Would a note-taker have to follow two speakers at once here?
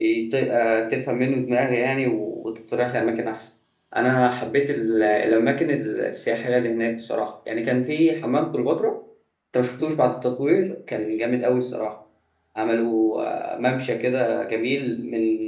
No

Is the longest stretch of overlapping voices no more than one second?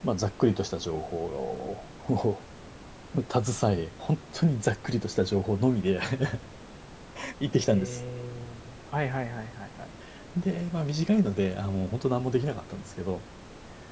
Yes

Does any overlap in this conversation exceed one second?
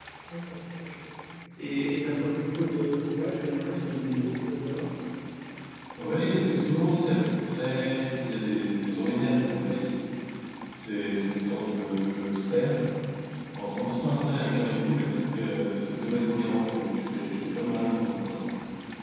No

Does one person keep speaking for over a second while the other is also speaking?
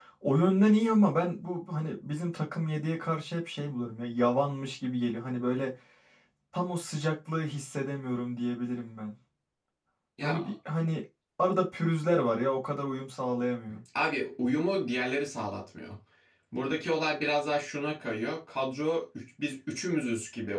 No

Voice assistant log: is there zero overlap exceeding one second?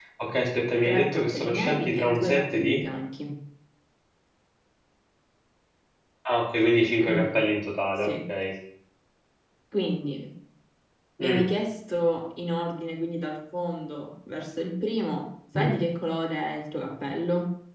No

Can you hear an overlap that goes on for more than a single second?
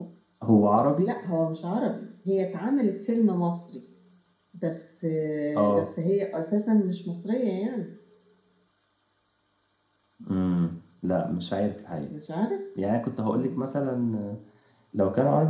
No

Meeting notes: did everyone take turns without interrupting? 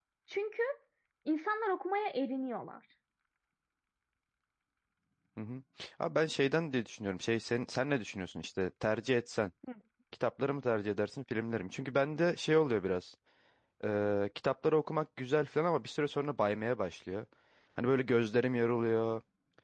Yes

